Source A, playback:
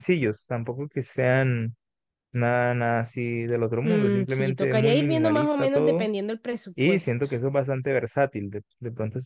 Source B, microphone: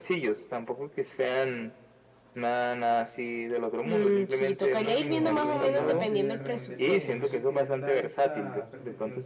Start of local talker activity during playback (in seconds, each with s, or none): 5.0 s